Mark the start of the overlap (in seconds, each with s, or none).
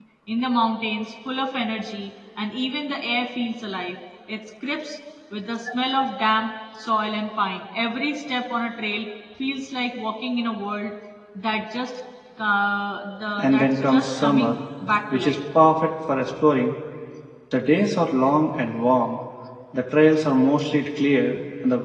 13.4 s